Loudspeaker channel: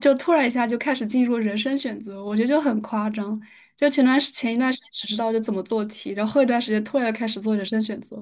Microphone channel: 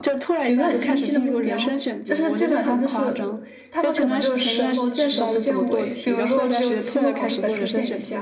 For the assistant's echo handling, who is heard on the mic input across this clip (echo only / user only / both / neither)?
both